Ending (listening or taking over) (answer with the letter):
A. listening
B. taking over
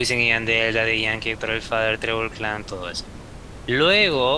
A